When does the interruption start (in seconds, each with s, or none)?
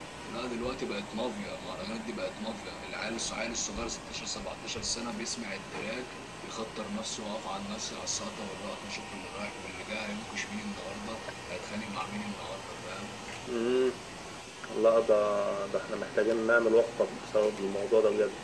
none